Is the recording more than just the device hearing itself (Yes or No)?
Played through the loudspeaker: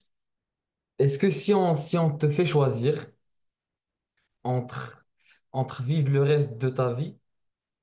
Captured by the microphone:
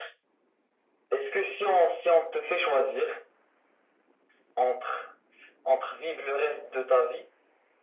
No